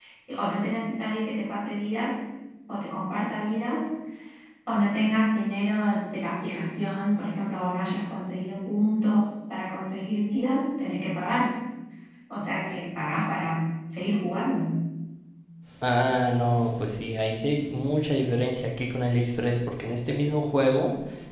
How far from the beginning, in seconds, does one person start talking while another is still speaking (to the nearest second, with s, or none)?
none